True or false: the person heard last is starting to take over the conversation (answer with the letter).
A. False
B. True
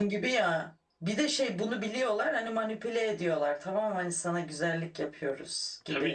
B